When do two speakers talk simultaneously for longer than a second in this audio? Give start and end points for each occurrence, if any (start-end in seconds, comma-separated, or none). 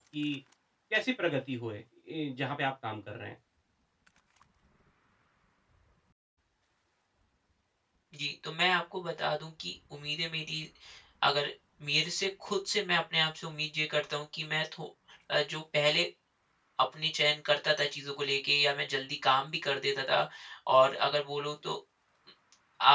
none